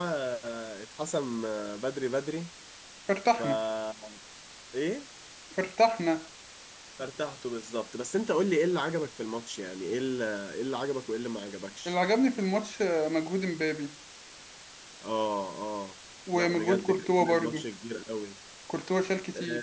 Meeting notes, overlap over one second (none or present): present